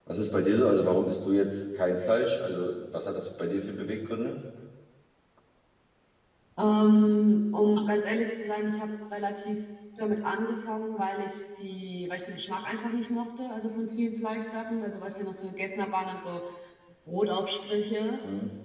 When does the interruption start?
none

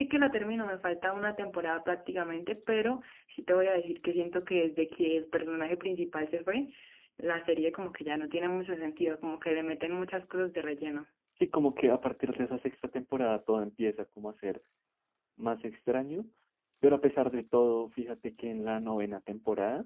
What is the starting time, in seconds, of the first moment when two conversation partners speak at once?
none

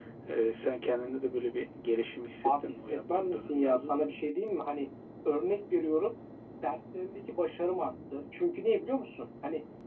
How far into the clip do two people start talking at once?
2.4 s

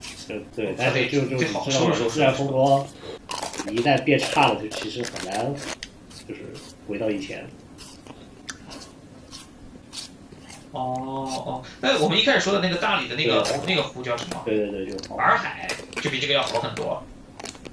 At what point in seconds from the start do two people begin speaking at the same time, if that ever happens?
0.6 s

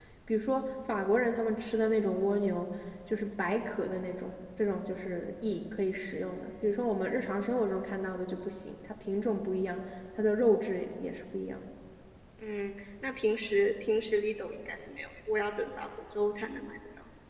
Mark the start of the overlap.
none

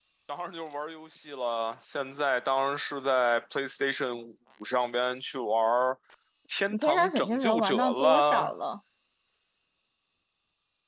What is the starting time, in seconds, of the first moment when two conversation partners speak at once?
6.7 s

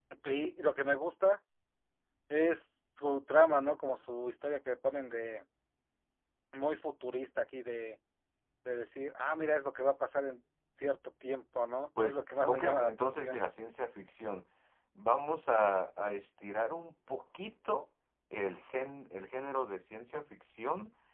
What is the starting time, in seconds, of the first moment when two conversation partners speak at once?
12.0 s

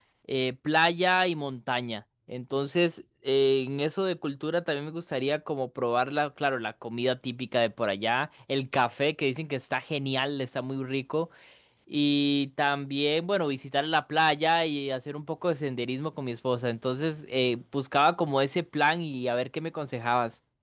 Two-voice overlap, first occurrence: none

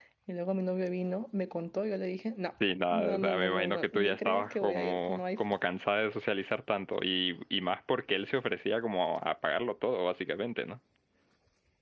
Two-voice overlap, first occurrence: 2.9 s

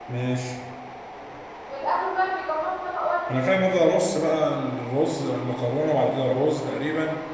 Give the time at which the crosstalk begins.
none

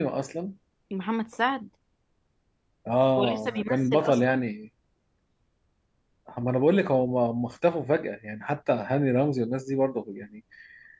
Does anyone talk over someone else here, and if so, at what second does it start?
3.2 s

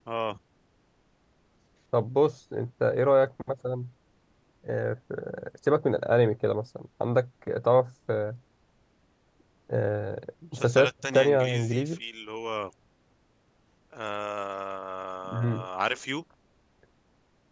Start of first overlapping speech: 10.5 s

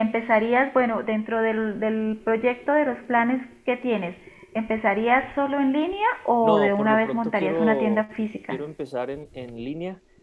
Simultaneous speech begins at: 6.4 s

